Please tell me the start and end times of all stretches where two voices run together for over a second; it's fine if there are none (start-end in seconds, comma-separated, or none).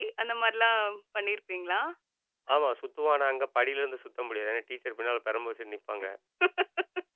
none